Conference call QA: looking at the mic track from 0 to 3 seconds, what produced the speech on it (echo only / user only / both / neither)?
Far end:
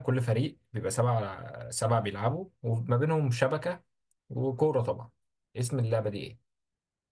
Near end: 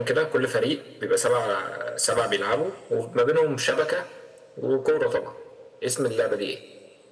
echo only